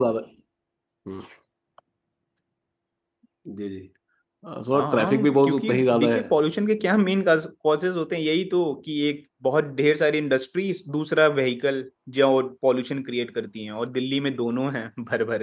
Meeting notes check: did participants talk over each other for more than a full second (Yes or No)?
Yes